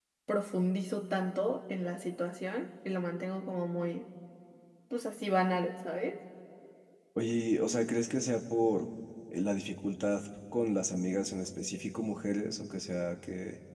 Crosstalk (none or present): none